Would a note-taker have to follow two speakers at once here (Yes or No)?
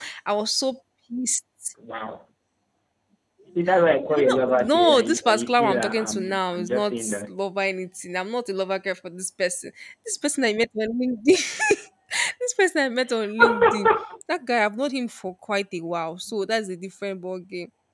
Yes